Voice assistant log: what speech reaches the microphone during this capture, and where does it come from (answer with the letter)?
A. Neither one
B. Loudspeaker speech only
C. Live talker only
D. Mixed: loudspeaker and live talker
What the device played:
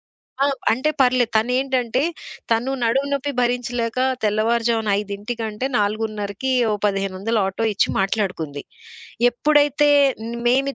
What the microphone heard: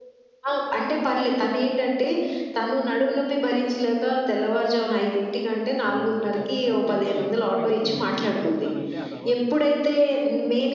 D